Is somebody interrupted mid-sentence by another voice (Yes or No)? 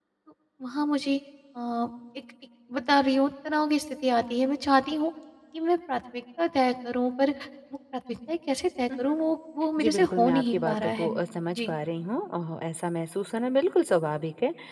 Yes